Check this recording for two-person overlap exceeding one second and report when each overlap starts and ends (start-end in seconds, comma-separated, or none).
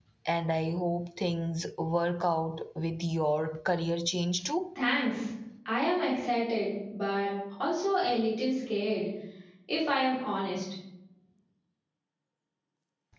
none